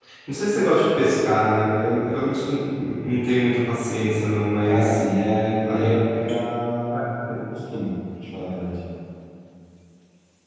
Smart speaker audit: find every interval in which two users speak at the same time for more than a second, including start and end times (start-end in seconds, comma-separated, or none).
none